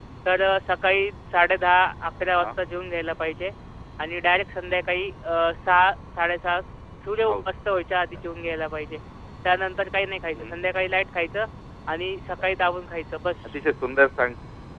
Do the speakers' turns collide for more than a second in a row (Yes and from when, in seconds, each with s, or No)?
No